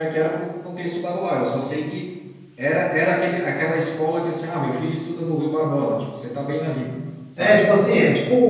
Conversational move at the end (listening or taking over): taking over